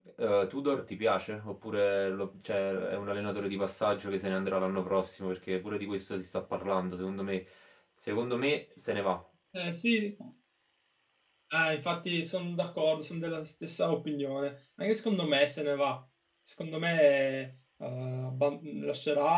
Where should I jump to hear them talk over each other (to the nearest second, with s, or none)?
none